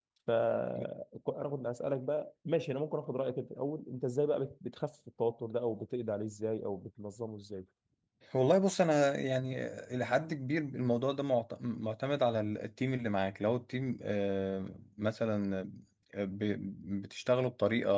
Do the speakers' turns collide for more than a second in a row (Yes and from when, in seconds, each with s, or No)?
No